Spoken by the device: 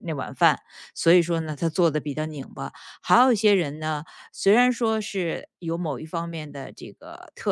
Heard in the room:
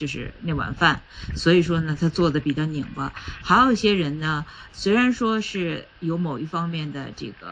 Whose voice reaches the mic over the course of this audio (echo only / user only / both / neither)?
echo only